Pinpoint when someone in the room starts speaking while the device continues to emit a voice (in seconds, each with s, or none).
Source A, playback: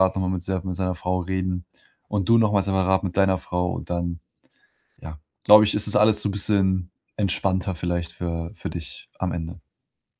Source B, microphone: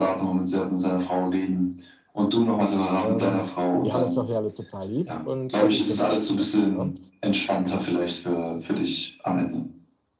3.0 s